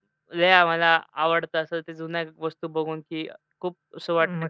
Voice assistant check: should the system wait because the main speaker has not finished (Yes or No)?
No